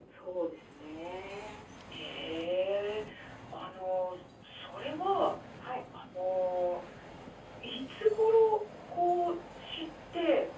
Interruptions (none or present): none